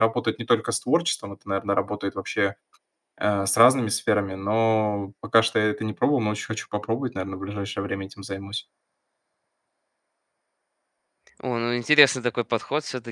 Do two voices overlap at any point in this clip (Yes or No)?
No